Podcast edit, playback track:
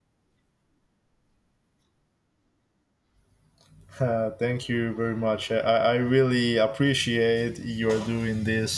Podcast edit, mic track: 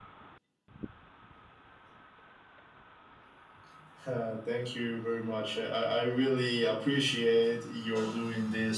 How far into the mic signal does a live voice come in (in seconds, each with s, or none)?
none